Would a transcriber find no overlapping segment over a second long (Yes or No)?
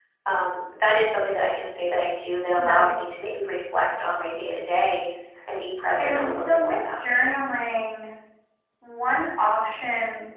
No